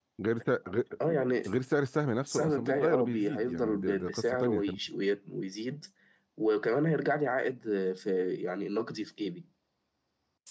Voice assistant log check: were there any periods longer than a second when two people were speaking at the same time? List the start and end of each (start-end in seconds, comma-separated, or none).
2.2-4.6